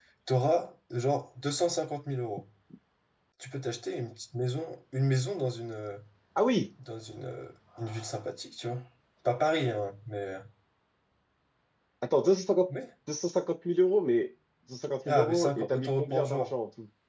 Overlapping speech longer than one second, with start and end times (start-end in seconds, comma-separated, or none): 15.1-16.5